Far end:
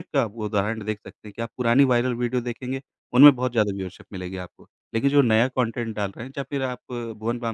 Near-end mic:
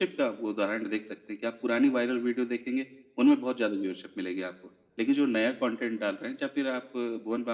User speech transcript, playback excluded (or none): none